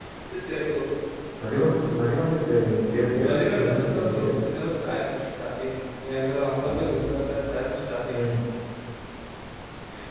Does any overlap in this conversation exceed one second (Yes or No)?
Yes